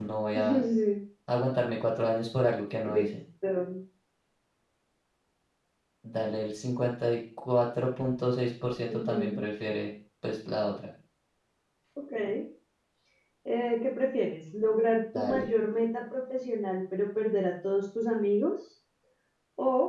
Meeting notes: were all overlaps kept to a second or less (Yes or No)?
Yes